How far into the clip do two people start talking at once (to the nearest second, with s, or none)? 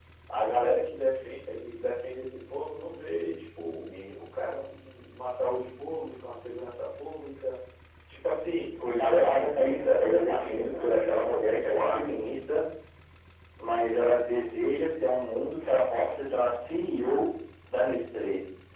9 s